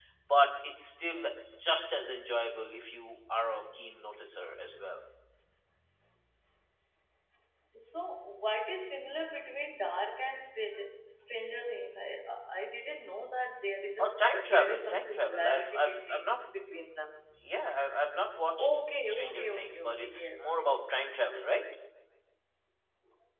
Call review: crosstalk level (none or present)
present